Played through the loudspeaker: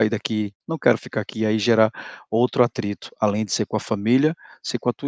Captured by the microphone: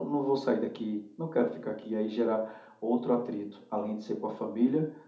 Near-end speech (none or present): none